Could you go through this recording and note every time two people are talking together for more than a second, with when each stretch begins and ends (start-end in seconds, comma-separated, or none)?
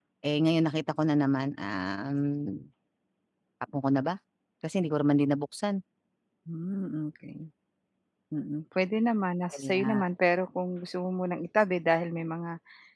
none